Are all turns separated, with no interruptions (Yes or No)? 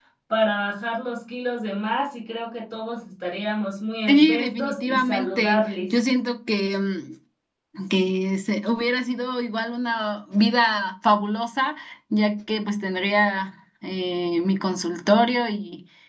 No